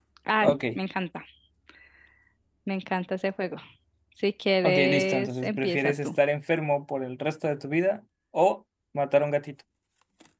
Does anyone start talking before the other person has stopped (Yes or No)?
Yes